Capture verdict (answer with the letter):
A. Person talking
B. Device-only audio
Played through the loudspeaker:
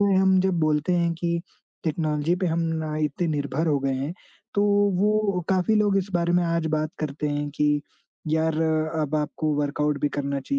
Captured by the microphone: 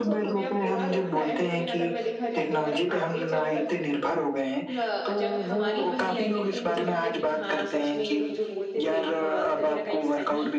A